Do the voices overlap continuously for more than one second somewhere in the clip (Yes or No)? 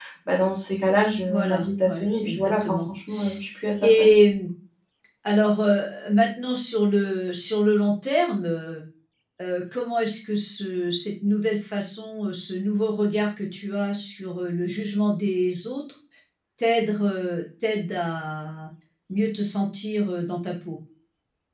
Yes